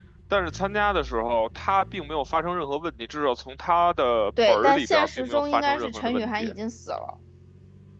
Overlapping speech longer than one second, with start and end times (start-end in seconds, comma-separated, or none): 4.5-6.5